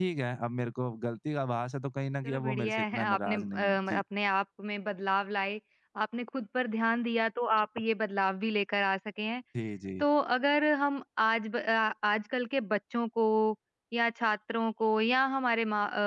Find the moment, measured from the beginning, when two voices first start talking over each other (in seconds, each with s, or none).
2.2 s